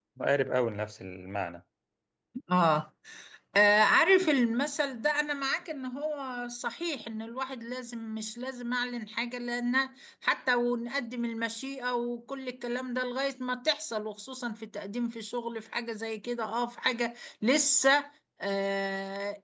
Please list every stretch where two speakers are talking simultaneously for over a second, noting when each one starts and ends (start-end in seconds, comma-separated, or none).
none